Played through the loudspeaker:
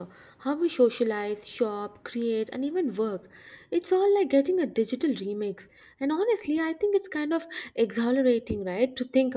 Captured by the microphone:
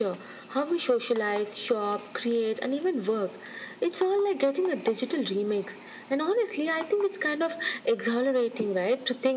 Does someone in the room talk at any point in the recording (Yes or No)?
No